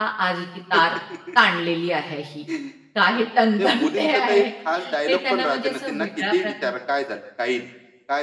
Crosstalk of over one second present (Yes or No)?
Yes